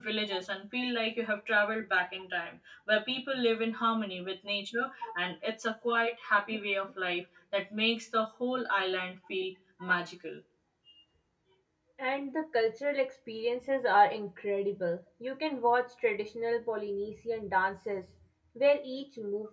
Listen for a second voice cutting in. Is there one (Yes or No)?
No